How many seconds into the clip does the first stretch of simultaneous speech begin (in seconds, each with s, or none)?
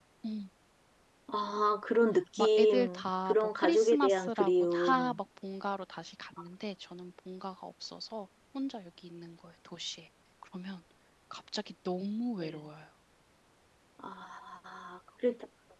2.4 s